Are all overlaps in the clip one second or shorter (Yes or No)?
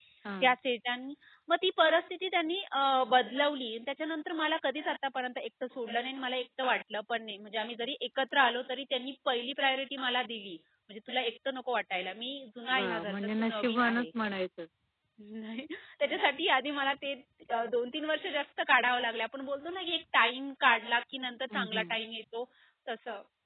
No